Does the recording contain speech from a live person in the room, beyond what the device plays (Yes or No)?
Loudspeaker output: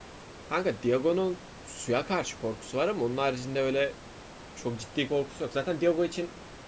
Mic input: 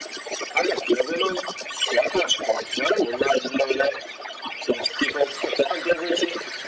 No